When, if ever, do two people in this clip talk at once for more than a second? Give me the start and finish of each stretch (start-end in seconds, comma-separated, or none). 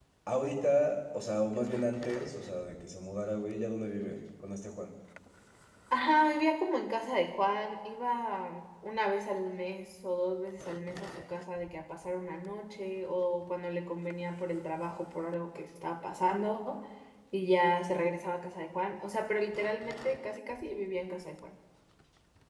none